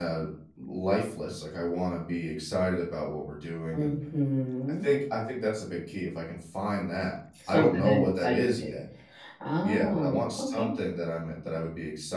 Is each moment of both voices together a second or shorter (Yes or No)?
No